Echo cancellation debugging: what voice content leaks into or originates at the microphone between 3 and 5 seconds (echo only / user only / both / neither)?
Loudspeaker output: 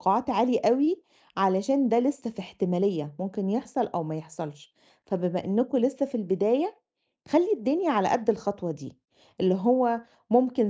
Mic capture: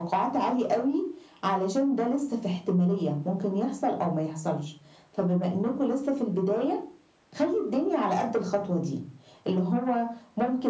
echo only